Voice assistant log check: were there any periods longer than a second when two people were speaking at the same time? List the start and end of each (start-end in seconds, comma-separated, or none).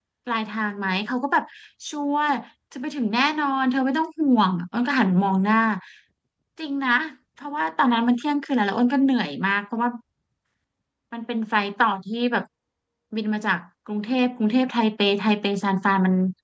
none